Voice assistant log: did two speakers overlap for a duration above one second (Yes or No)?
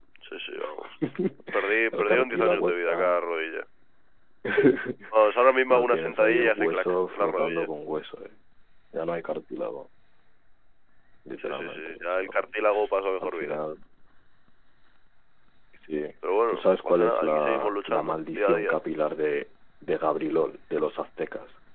Yes